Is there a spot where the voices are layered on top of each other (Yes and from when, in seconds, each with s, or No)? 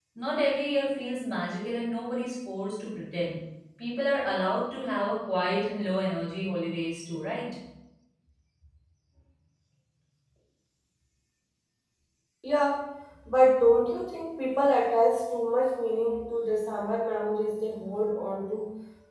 No